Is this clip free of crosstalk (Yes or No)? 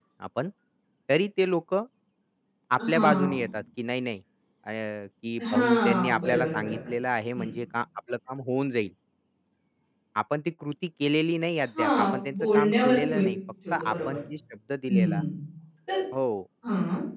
No